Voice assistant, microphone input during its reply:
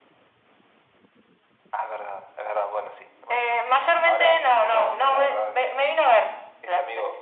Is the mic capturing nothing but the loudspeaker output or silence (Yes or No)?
Yes